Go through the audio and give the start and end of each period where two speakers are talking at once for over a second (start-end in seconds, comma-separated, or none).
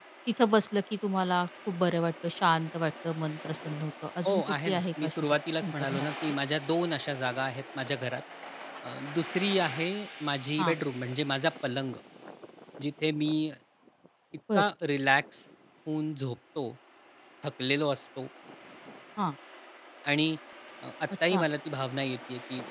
4.2-6.1